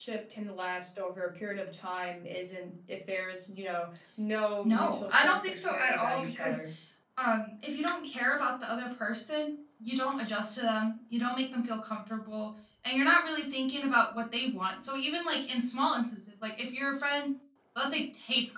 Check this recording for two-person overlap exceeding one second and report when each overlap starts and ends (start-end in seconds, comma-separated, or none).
4.6-6.6